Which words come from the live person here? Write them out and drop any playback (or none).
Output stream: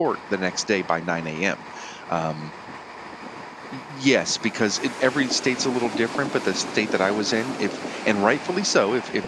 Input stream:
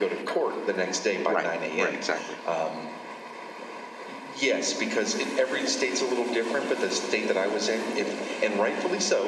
Right. Right. Exactly.